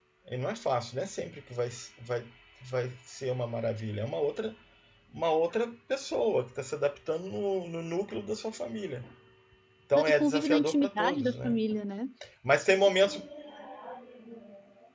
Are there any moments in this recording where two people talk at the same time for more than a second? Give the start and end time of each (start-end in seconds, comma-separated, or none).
10.1-11.6